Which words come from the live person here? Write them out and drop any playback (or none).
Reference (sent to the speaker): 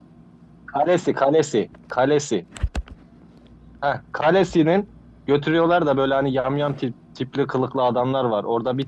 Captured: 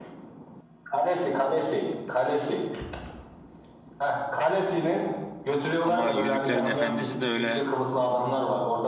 ama Yüzüklerin Efendisi de öyle